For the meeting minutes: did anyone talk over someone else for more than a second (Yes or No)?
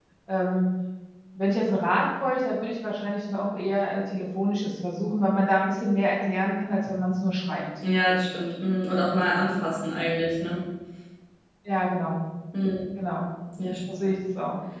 No